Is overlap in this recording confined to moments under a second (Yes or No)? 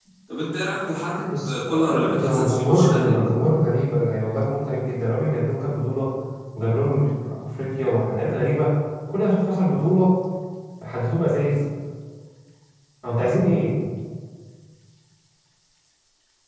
No